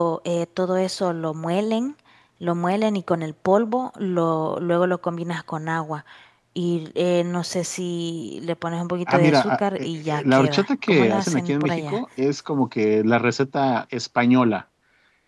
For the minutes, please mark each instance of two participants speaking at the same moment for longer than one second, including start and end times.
9.1-12.0

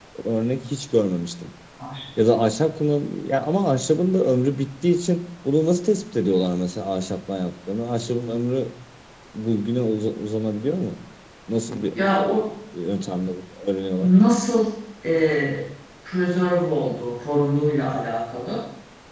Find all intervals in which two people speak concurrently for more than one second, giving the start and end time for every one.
none

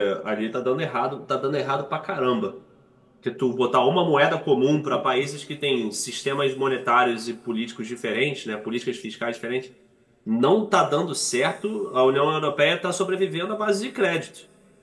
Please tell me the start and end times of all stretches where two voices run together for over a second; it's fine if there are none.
none

